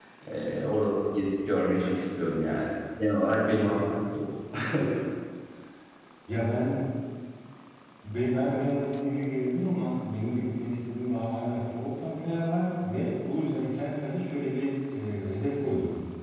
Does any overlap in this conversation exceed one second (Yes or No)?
No